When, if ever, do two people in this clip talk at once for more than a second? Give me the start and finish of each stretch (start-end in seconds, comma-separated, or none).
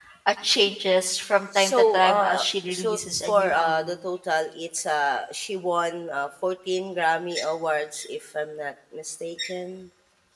1.6-3.9